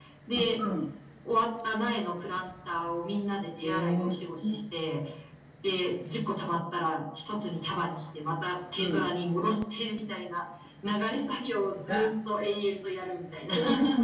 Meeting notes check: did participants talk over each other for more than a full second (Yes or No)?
No